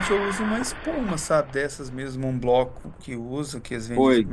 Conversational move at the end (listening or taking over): taking over